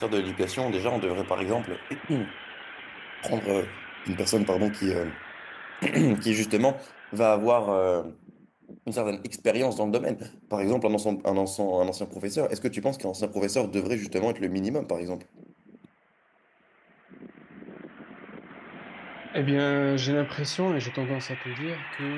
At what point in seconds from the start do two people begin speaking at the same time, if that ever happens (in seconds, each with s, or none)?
none